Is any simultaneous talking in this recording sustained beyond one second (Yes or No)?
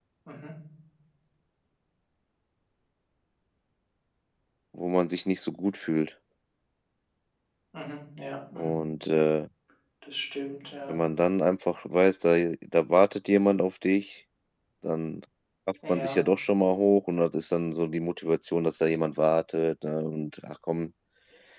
No